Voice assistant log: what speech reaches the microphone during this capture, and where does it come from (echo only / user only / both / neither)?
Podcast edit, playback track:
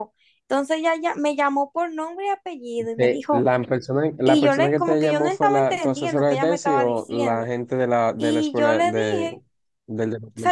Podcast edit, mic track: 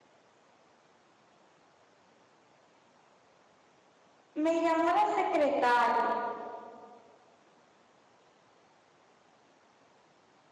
user only